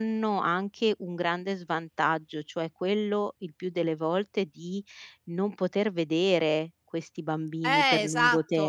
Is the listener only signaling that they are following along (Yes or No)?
No